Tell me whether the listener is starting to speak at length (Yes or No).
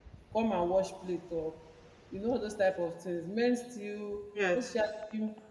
No